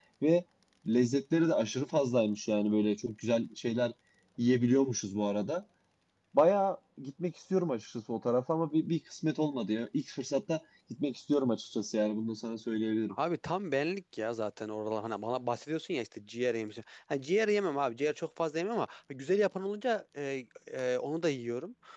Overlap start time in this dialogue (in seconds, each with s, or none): none